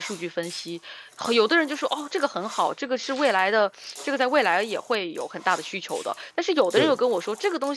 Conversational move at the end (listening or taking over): listening